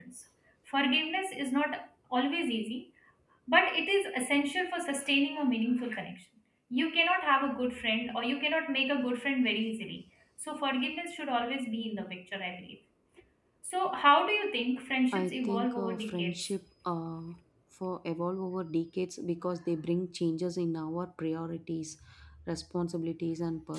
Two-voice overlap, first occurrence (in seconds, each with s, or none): 15.1 s